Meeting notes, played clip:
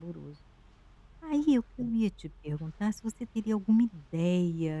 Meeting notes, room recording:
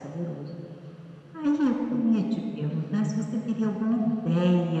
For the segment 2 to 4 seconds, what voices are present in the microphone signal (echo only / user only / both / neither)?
echo only